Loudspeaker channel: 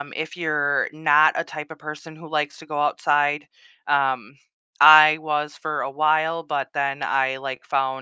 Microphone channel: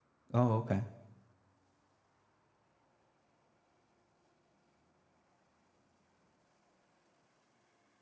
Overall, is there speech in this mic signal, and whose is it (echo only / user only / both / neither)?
user only